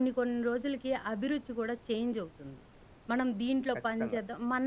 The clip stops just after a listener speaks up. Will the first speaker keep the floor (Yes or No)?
Yes